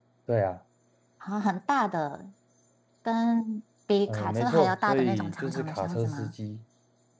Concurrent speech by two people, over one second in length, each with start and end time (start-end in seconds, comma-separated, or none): 4.1-6.3